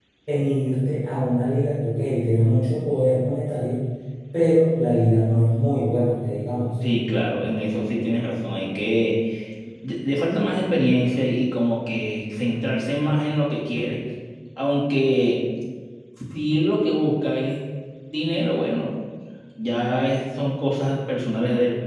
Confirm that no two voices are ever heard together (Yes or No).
Yes